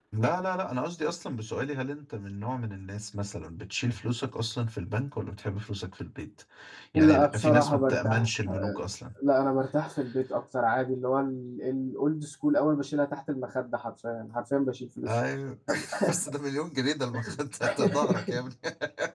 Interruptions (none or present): present